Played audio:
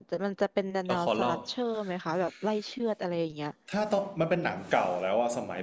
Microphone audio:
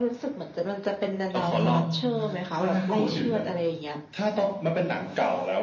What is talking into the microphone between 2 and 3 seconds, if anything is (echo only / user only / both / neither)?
both